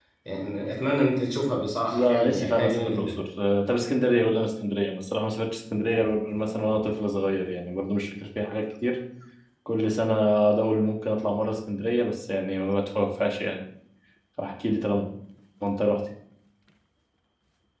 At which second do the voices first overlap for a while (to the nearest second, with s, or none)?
2 s